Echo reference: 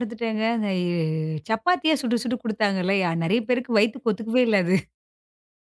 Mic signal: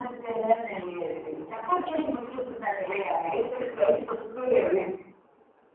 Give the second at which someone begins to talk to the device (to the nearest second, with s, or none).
none